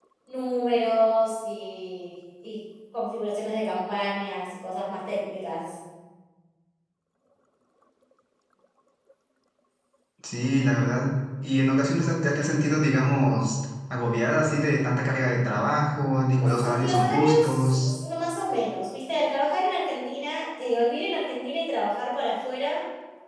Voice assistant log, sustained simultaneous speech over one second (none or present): present